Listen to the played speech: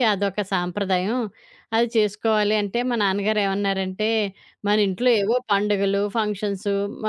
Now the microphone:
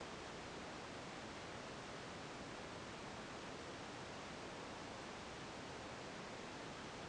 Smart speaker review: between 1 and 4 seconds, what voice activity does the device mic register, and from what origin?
neither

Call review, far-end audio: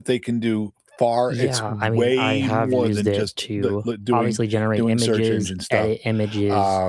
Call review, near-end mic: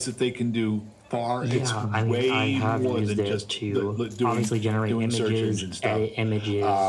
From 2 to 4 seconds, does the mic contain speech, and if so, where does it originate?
echo only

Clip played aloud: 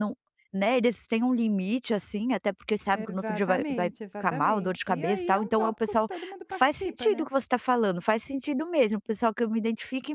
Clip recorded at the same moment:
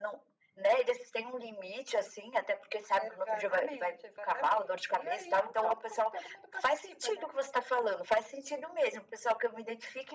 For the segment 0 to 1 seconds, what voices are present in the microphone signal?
echo only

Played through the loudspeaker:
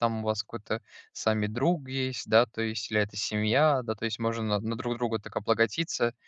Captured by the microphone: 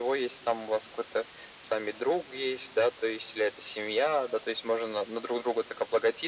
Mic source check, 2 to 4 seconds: echo only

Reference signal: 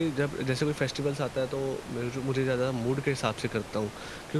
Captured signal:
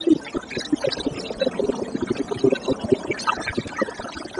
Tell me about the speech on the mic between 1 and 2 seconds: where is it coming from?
echo only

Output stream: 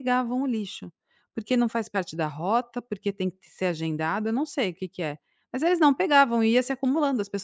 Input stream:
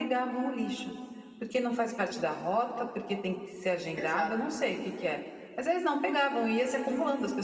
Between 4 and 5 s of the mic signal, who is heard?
both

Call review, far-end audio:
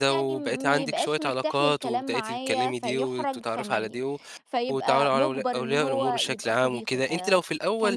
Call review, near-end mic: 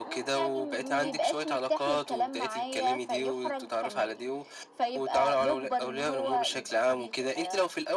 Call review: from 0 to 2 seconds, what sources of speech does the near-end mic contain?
echo only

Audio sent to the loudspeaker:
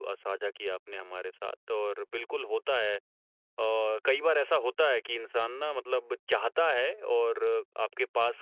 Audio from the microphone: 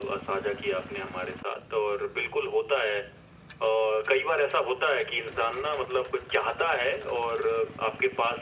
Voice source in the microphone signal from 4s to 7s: echo only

